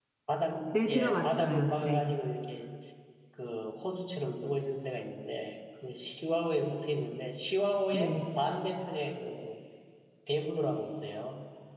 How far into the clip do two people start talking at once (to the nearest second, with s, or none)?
1 s